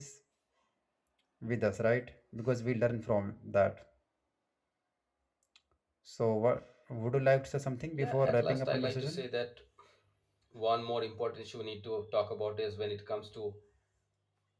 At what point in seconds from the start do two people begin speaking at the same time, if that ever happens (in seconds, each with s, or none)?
8.0 s